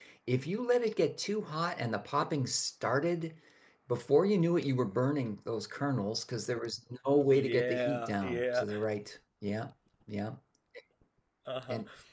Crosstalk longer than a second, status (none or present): present